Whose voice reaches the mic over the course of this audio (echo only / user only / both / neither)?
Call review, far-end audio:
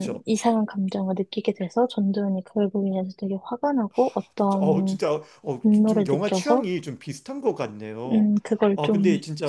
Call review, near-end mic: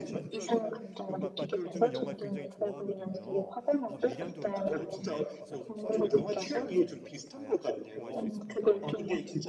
both